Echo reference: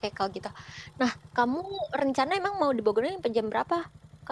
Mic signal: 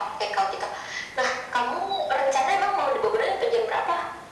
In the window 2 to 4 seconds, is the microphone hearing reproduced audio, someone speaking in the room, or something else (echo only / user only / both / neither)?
echo only